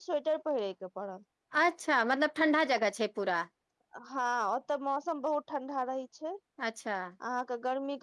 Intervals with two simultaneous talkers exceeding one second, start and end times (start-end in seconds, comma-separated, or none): none